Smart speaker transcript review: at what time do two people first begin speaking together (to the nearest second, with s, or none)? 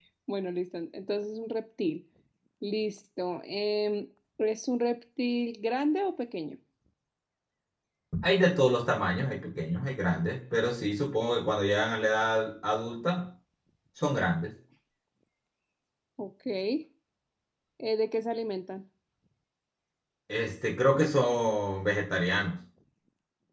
none